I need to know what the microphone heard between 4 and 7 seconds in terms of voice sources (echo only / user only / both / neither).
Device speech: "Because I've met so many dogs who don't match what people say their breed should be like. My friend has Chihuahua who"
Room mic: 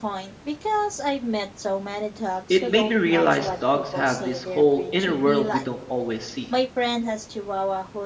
both